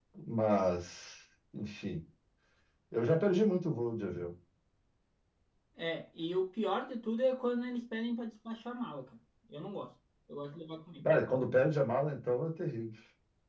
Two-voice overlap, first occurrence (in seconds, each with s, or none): none